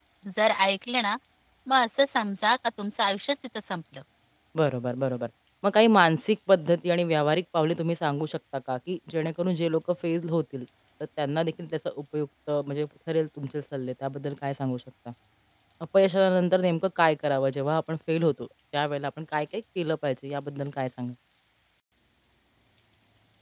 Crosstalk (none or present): none